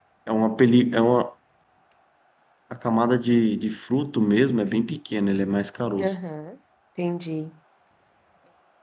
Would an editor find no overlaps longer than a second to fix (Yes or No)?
Yes